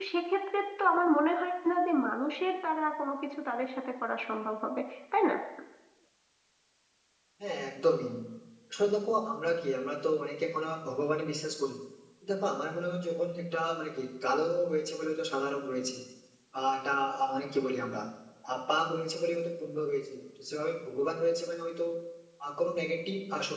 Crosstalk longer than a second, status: none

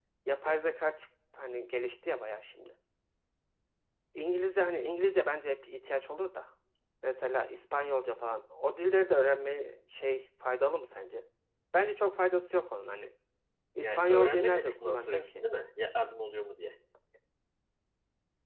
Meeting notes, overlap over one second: present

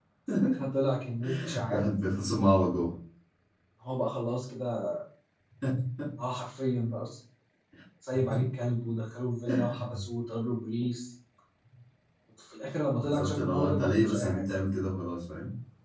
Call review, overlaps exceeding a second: present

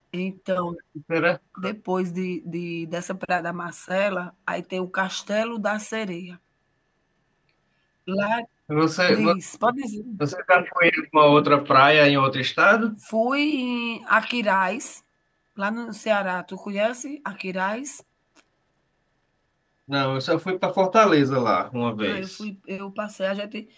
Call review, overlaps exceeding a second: none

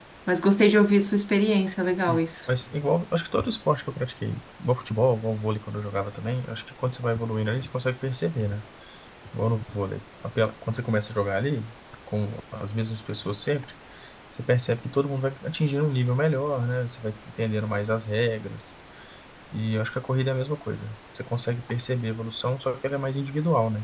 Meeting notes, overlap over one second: none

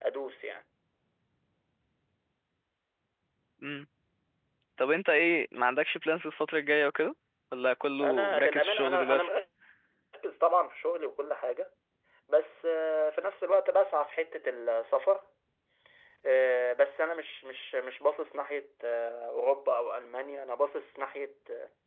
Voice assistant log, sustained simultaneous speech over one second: present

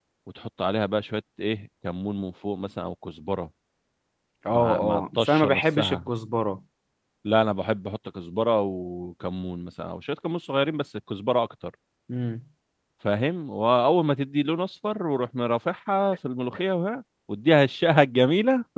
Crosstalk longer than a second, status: present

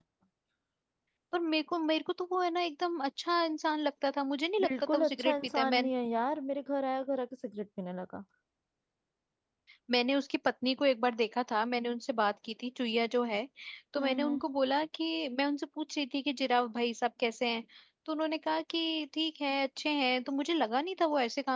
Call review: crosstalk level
present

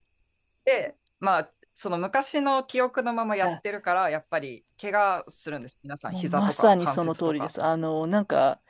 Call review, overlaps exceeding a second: present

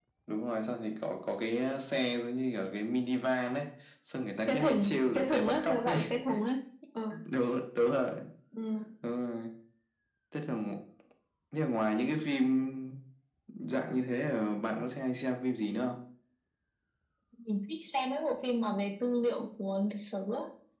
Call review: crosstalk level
present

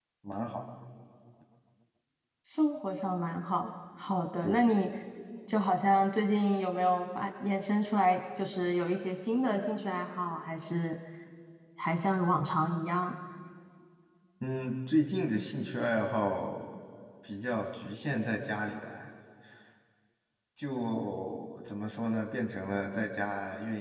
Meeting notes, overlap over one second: none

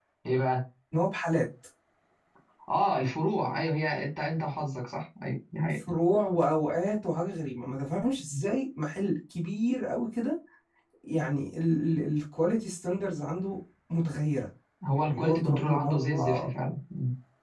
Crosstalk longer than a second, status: present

